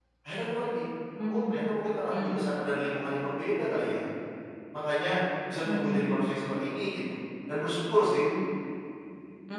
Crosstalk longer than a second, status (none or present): none